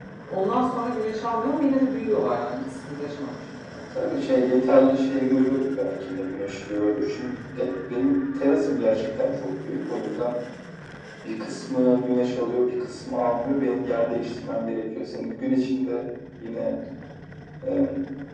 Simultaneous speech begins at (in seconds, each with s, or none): none